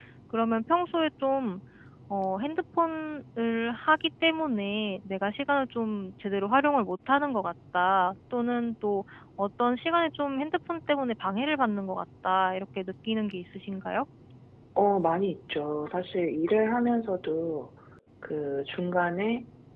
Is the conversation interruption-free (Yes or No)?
Yes